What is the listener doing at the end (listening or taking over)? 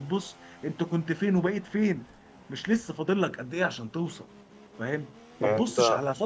listening